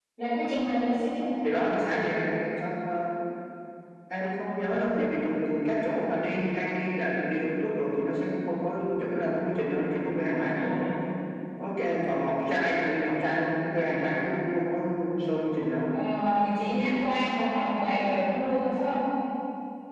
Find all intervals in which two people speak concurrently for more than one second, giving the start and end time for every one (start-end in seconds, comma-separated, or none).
none